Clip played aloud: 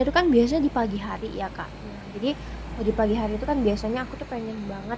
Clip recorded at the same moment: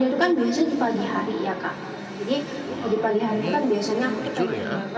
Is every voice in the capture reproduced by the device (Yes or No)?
No